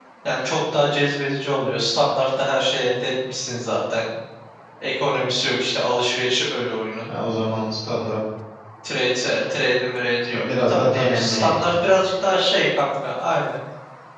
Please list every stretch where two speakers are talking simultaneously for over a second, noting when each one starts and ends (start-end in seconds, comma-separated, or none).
10.3-11.8